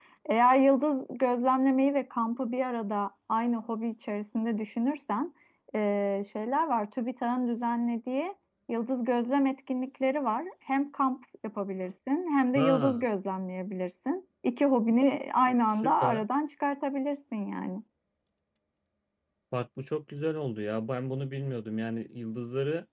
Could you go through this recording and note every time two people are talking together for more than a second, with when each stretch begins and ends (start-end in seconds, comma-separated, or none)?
none